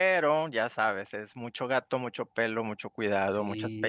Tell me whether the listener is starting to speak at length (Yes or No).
Yes